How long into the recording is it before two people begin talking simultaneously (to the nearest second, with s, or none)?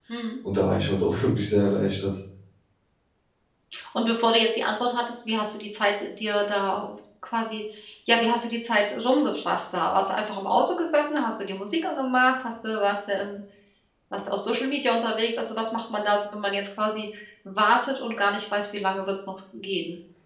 none